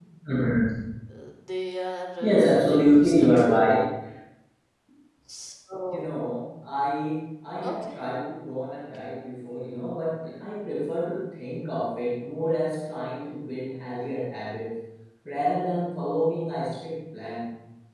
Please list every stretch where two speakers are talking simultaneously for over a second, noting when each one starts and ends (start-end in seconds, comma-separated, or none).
2.2-3.7